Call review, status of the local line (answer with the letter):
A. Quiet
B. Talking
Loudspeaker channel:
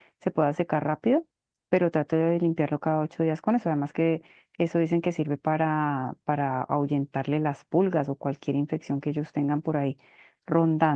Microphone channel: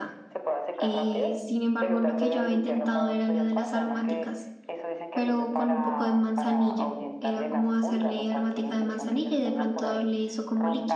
B